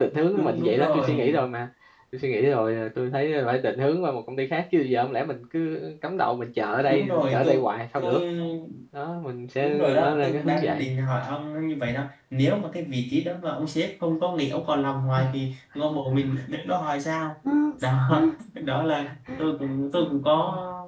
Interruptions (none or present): present